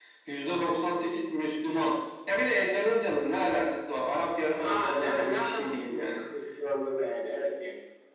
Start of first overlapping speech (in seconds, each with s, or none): 4.6 s